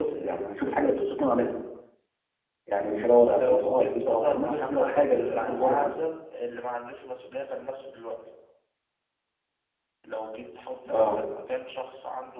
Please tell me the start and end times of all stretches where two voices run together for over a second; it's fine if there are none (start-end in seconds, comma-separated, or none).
3.4-5.9